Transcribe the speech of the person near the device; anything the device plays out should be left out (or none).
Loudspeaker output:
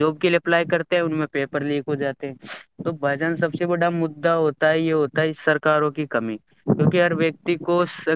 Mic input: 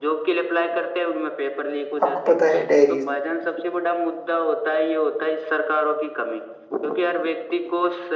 آپ کو پتہ ہے ڈائریز